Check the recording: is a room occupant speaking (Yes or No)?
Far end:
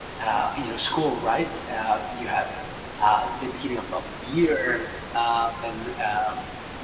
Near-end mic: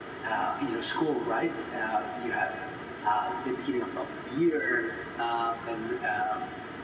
No